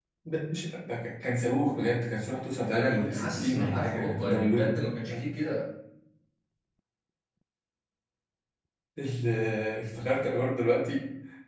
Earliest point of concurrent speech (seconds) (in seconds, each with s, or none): 2.7 s